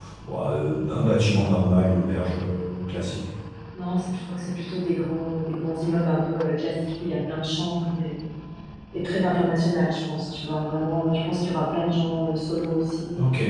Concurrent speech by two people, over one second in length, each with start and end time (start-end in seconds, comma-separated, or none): none